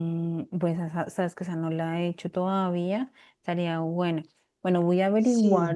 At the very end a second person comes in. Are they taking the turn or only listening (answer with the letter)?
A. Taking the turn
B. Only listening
B